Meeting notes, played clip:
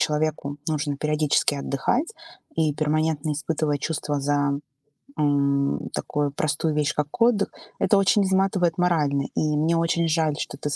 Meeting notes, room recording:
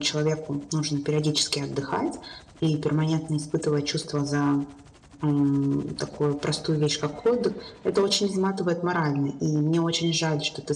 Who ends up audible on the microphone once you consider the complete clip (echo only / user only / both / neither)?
echo only